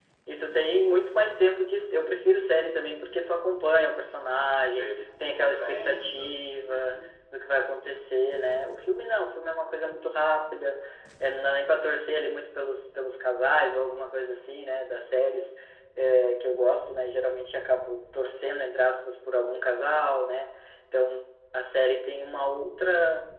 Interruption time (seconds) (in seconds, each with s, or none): 4.8 s